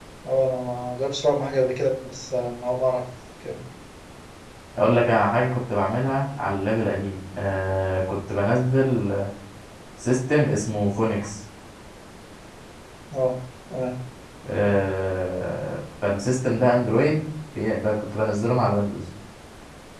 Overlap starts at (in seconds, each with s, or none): none